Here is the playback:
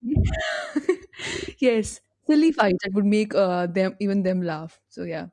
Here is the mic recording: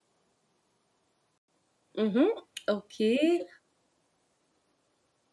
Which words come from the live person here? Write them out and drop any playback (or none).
Mm-hmm. Okay.